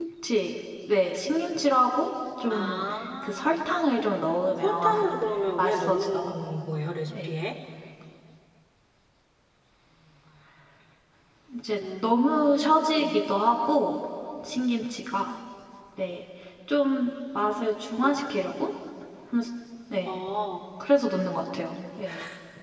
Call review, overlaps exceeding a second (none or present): present